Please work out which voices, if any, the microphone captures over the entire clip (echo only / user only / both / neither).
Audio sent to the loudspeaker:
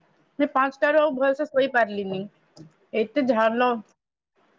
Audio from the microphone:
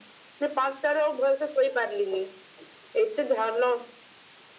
echo only